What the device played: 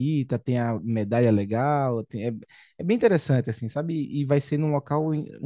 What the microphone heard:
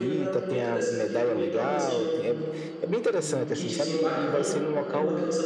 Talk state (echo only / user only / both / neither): both